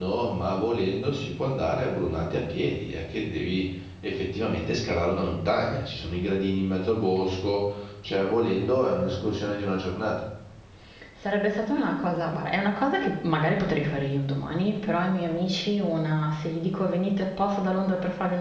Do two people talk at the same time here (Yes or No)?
No